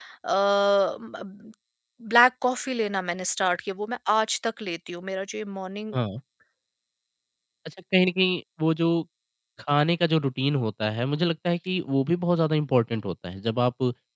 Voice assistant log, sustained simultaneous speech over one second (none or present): none